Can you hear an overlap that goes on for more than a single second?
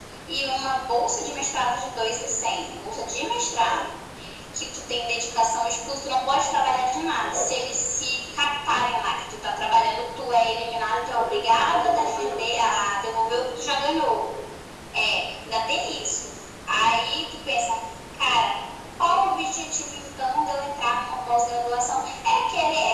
Yes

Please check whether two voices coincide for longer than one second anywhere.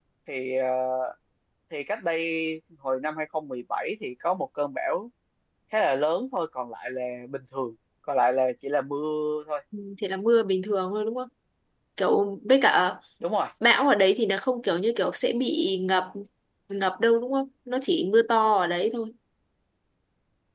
No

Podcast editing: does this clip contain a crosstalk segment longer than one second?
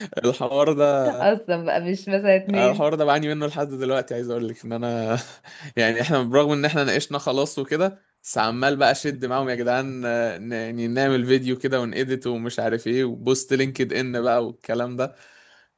No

